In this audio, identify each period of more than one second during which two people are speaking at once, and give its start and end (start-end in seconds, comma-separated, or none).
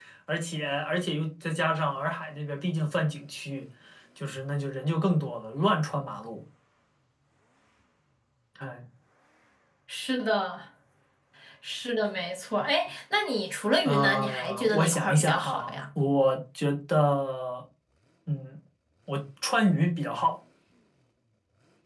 13.8-15.7